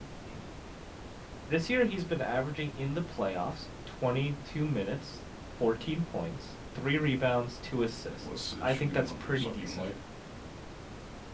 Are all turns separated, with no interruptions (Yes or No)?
No